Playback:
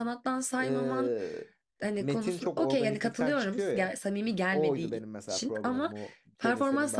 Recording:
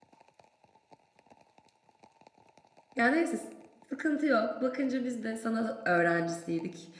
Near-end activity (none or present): present